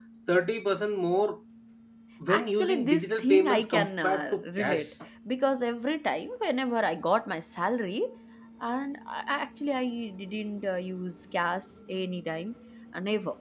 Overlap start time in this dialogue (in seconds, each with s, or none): 2.4 s